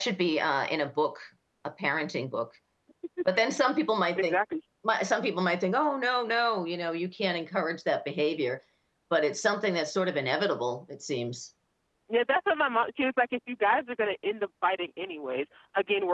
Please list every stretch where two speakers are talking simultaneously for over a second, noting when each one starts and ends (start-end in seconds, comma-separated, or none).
none